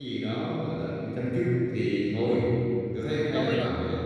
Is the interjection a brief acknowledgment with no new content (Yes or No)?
Yes